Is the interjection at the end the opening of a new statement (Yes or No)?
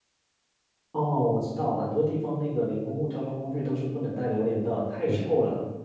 Yes